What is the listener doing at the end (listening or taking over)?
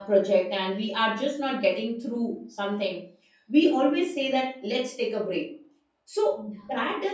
listening